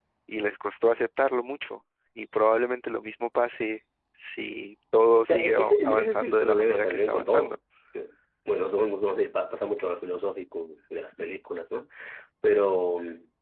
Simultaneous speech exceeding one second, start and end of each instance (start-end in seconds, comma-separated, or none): 5.3-7.5